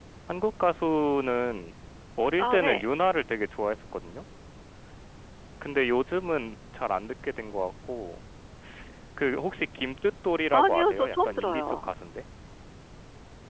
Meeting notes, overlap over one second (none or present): present